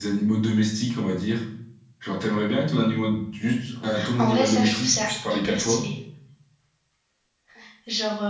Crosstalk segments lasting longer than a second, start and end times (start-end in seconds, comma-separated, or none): 4.2-5.8